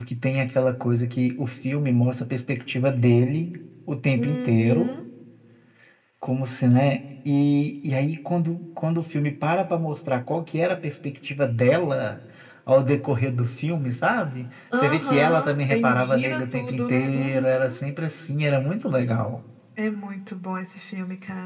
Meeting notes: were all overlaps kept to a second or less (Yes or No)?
No